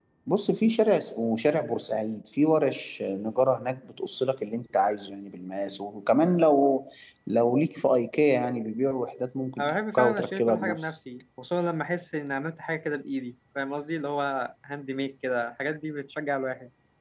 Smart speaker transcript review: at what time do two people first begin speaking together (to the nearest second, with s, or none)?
10 s